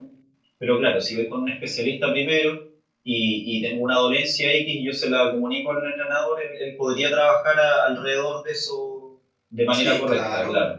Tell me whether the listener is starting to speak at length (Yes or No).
Yes